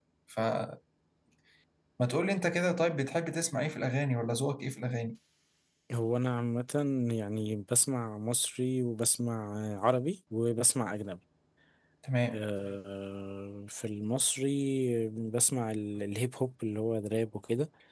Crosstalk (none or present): none